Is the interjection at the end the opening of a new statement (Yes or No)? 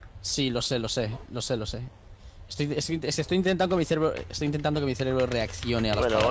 Yes